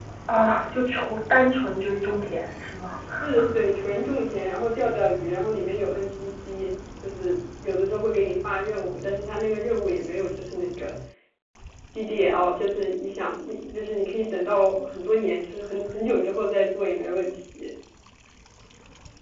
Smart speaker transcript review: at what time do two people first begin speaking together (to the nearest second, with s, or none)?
none